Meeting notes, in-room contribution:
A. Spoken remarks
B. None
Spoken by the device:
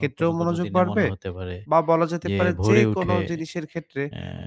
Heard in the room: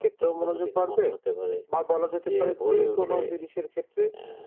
B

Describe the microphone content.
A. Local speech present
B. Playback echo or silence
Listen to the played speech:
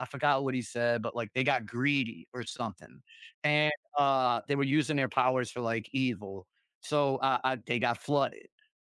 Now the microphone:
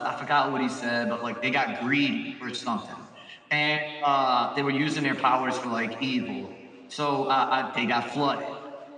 B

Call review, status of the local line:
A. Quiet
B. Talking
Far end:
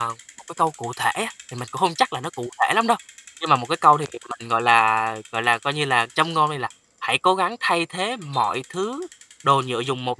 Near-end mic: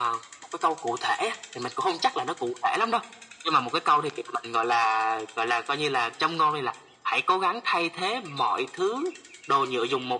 A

